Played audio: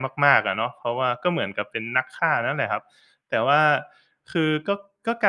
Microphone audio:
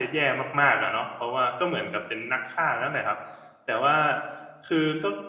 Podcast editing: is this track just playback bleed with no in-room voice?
Yes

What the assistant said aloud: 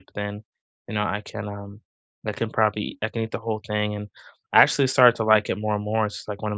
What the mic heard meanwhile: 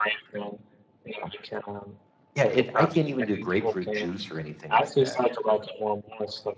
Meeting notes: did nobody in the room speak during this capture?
No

